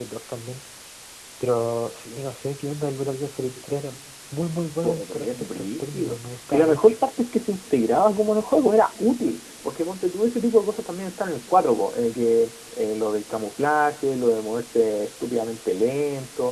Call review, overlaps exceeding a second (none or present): present